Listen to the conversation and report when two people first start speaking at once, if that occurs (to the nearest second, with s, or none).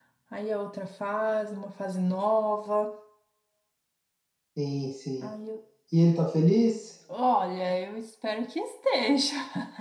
none